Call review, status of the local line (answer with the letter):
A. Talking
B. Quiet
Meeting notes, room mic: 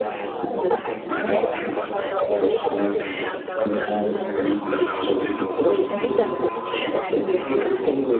B